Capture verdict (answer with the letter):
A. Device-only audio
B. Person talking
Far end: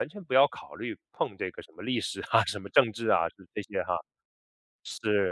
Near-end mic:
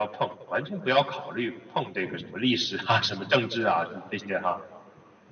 A